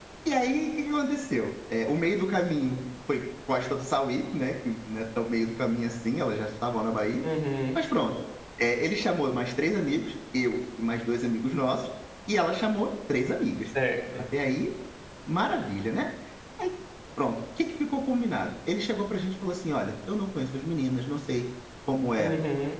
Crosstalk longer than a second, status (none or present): none